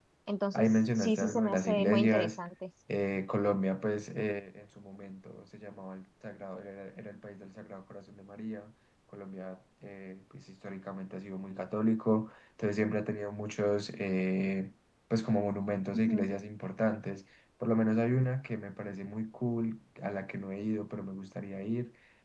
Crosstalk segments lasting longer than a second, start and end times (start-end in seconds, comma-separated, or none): 0.5-2.4